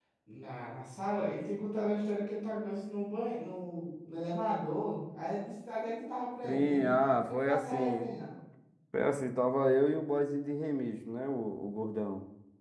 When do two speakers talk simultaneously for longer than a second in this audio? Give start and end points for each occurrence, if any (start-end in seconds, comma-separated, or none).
6.4-8.1